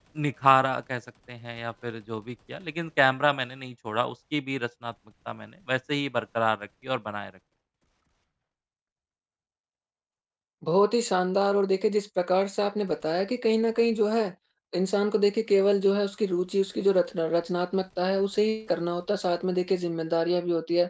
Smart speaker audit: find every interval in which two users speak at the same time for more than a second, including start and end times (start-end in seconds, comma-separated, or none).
none